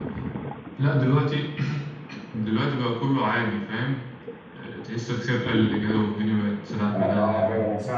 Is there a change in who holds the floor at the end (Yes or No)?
Yes